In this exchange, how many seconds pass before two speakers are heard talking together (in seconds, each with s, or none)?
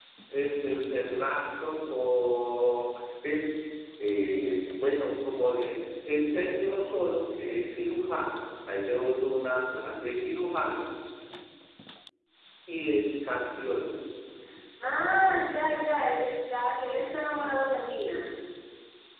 none